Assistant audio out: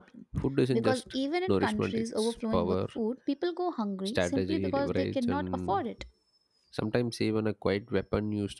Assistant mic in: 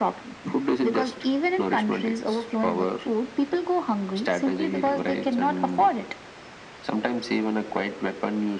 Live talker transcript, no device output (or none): none